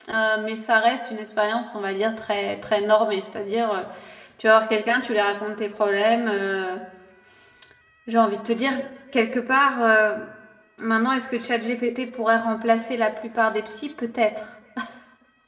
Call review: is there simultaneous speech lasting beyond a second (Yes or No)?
No